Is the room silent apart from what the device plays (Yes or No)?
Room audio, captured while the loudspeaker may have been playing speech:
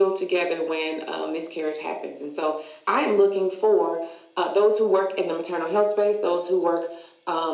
Yes